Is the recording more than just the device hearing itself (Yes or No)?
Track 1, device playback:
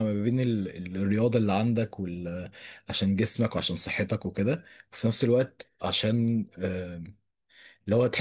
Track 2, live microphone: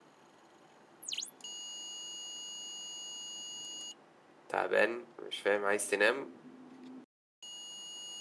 Yes